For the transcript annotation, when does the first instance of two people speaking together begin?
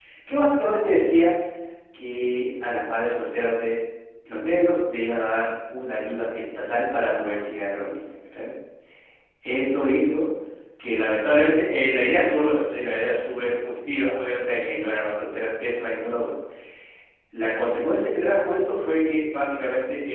none

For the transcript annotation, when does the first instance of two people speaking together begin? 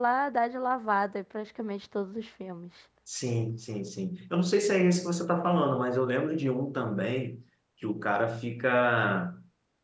none

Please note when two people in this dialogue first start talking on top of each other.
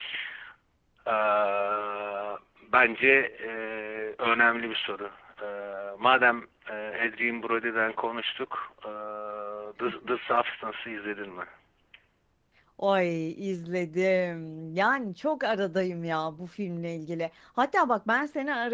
none

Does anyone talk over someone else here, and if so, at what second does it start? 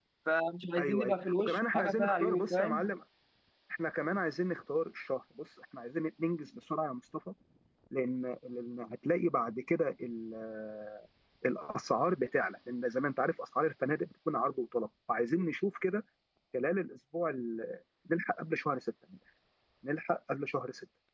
1 s

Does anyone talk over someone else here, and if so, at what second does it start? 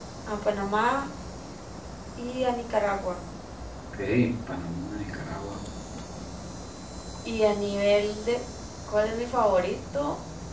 none

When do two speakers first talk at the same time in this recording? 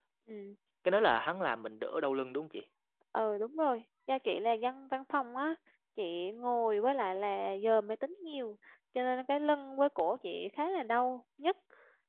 none

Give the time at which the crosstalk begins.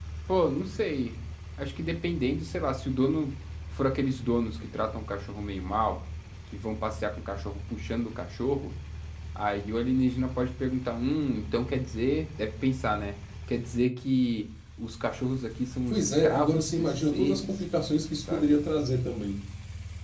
16 s

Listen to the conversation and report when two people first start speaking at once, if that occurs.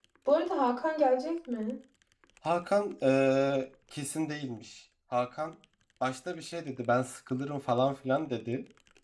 none

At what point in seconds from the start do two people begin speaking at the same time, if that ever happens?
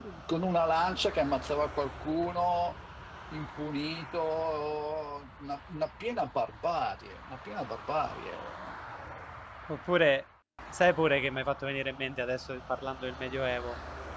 none

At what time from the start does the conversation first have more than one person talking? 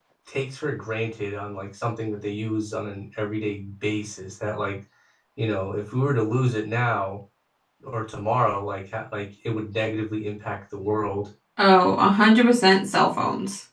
none

